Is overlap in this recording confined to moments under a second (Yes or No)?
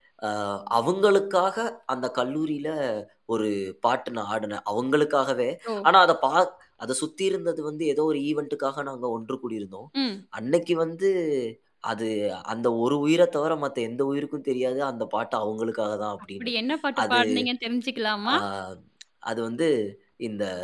Yes